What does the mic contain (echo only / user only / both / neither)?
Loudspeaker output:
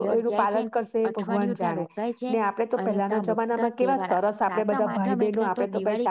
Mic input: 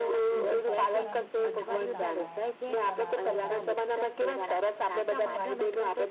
both